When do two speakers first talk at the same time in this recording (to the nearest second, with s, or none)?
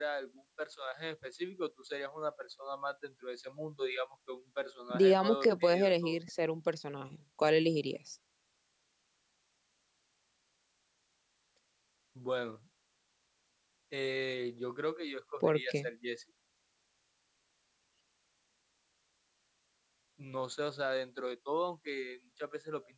5 s